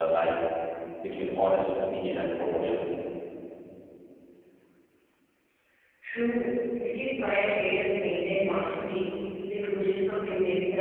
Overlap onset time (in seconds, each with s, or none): none